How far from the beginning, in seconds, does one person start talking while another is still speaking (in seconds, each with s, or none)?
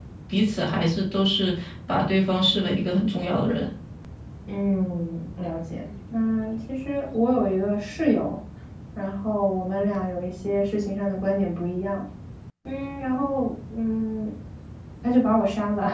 none